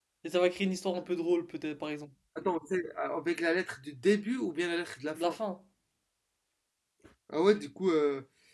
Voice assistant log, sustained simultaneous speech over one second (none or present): none